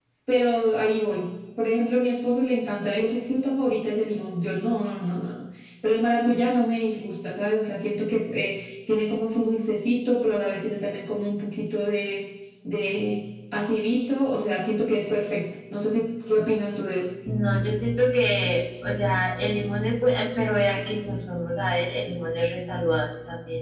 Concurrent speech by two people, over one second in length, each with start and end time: none

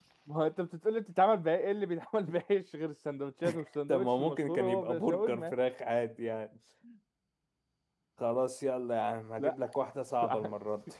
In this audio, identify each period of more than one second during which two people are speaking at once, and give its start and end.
3.9-5.5

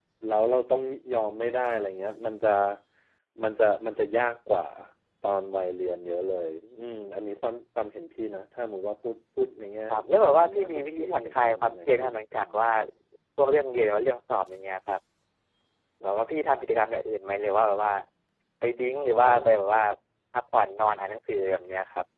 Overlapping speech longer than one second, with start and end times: 10.2-12.4

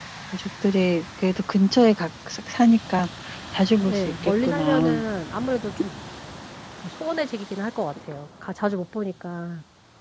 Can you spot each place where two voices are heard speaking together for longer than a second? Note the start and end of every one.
3.8-5.0

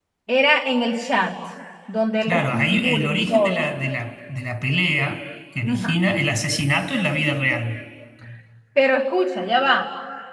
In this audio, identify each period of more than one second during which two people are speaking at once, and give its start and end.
2.2-3.7

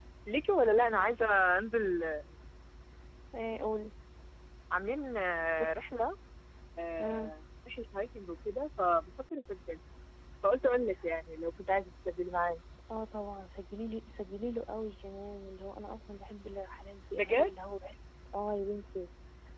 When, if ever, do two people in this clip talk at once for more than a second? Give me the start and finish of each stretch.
none

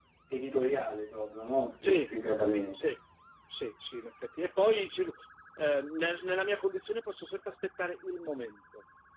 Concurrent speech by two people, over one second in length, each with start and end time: none

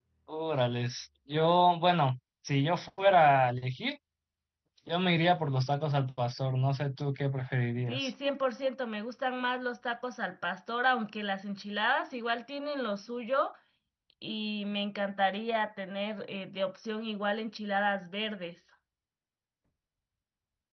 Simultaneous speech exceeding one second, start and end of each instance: none

